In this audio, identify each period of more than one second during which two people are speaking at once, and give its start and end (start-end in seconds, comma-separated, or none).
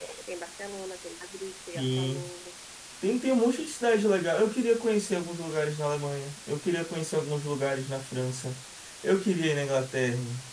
none